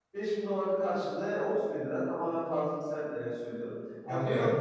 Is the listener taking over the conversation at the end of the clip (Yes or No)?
No